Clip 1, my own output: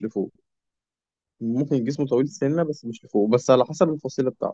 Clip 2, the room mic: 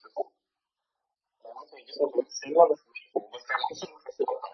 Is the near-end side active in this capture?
No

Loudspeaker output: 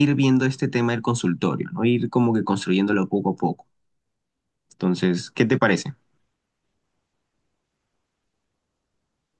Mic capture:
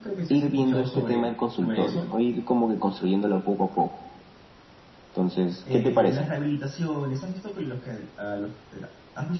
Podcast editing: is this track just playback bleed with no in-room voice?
No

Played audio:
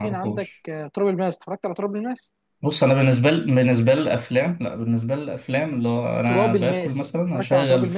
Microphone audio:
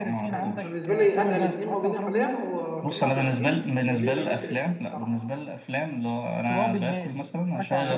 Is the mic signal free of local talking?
No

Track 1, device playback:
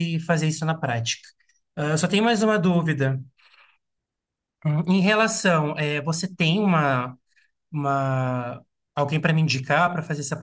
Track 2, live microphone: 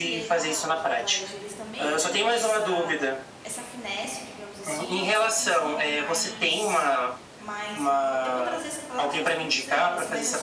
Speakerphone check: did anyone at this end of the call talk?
Yes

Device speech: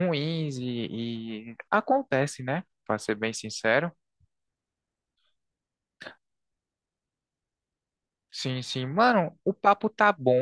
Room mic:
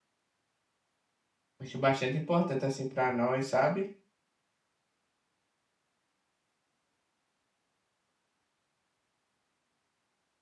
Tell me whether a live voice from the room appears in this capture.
Yes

